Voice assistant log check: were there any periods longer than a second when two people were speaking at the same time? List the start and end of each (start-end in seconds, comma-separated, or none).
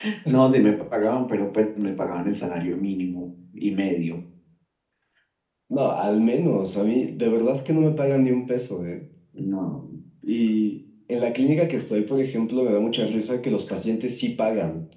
none